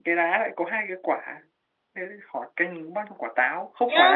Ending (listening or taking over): taking over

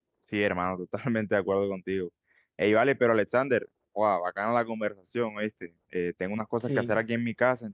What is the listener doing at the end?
listening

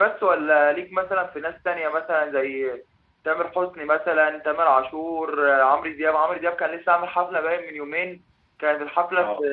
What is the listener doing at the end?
listening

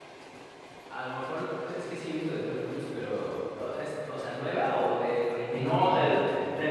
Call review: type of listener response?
taking over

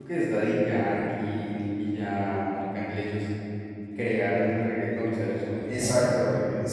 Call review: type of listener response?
taking over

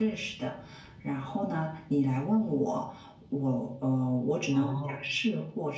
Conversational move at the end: listening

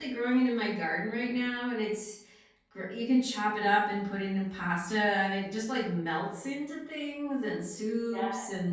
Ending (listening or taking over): listening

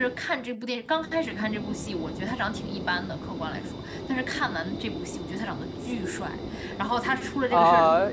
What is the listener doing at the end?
taking over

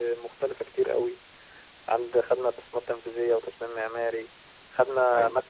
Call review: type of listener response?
listening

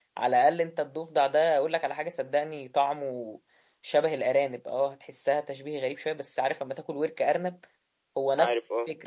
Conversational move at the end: listening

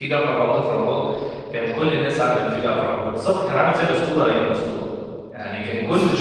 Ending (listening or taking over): listening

